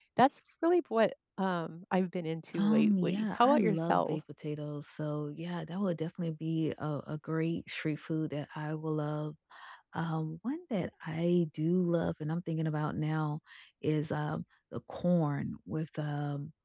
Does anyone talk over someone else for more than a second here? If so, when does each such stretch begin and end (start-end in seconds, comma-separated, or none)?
2.6-4.2